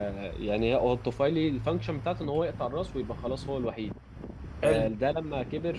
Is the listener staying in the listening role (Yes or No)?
Yes